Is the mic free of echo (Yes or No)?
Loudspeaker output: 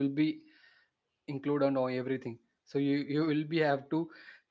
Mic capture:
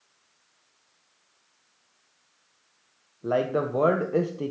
Yes